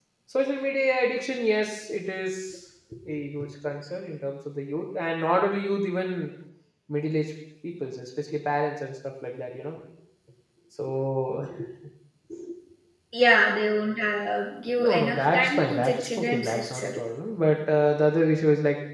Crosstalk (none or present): present